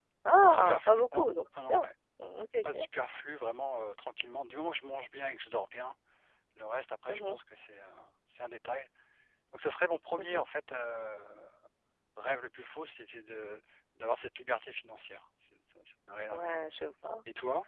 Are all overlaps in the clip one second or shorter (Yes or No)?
No